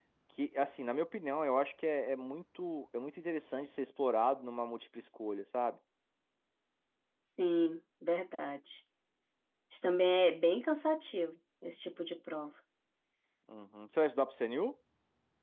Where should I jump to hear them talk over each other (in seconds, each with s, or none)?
none